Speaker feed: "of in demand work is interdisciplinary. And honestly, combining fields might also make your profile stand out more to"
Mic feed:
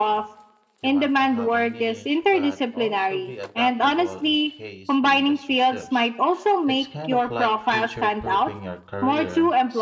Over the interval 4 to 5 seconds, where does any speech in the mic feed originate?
both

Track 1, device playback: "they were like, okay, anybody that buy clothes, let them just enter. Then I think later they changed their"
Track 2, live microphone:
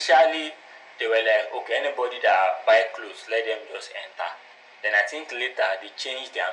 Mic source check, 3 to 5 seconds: echo only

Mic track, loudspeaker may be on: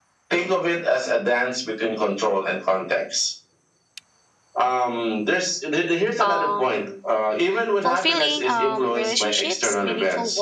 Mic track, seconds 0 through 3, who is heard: echo only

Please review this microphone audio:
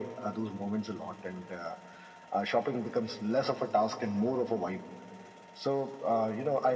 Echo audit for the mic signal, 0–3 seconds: echo only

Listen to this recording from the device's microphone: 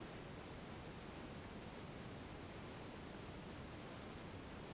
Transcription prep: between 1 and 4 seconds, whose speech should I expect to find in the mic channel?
neither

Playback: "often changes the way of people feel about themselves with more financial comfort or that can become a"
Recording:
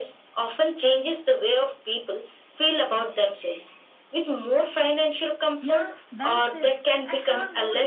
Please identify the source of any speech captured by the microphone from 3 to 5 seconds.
echo only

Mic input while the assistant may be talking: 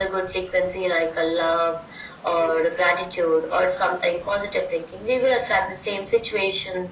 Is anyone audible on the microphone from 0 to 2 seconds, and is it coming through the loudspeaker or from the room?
echo only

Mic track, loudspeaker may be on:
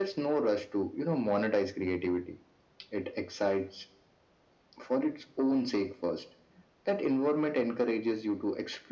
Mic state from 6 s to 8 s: echo only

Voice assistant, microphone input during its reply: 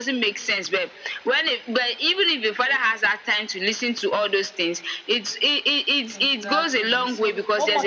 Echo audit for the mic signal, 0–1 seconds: echo only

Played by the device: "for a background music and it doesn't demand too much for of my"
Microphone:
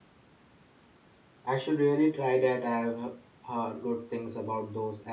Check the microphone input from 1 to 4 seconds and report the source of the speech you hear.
user only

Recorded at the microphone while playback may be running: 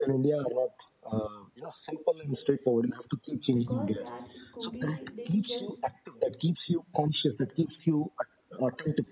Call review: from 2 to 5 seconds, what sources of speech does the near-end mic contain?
both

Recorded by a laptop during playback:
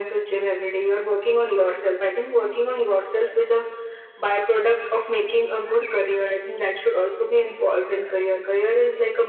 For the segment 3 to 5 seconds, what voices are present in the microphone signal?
echo only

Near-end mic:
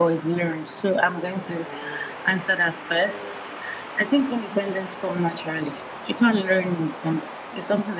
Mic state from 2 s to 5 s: echo only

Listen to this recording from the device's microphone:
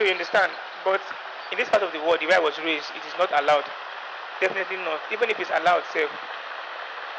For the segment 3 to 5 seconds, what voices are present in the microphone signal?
echo only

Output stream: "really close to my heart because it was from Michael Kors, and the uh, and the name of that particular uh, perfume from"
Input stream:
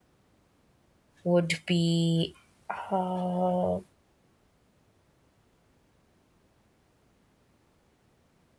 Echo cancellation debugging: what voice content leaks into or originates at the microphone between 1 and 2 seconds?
user only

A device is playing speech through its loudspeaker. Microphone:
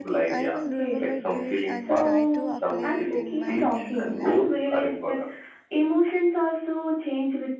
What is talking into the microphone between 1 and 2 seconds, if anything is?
both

